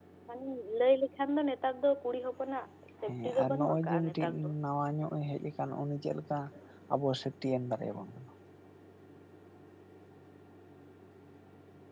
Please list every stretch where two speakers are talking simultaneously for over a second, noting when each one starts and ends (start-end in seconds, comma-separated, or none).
3.0-4.5